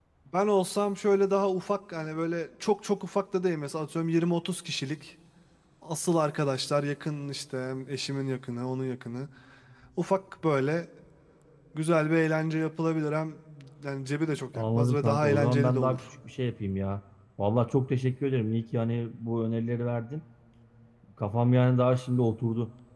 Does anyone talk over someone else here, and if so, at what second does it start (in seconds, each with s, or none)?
14.6 s